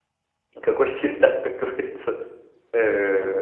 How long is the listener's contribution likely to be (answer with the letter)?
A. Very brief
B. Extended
B